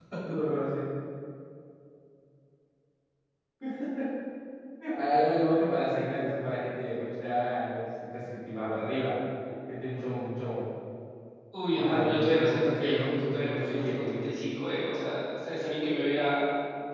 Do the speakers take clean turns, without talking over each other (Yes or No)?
No